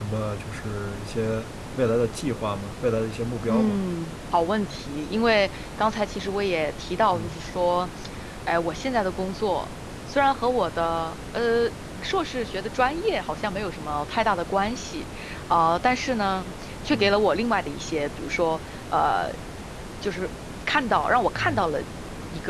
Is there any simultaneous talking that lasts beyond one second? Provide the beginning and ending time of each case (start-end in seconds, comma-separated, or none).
none